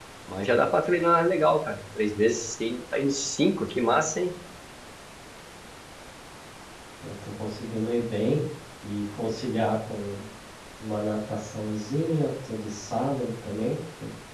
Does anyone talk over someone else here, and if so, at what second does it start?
none

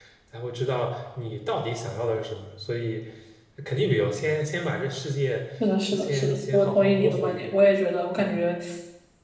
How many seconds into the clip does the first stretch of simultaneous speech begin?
5.9 s

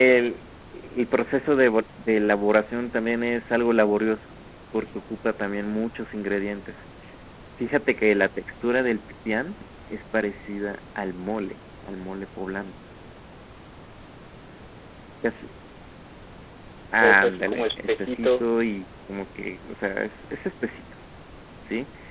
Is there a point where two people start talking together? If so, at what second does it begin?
17.0 s

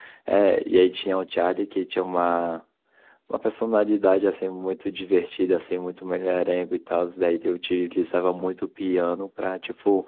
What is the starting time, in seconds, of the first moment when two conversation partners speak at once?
none

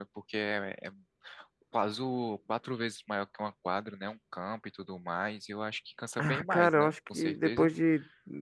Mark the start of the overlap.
6.2 s

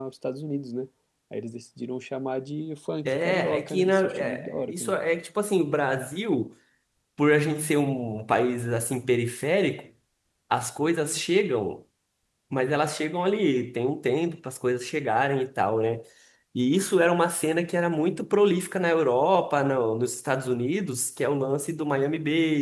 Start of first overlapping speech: 3.0 s

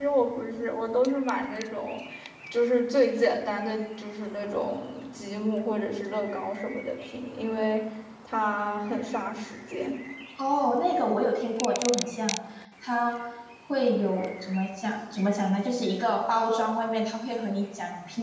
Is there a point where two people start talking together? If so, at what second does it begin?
none

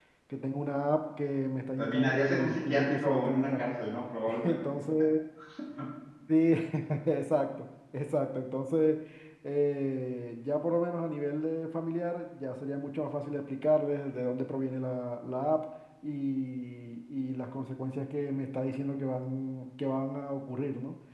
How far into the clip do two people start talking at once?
1.8 s

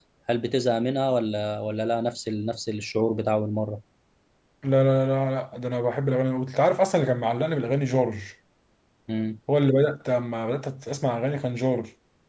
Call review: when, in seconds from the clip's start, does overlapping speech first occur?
none

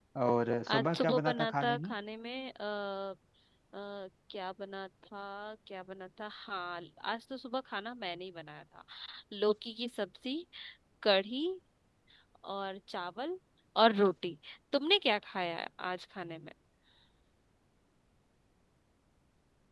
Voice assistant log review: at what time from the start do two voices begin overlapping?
0.7 s

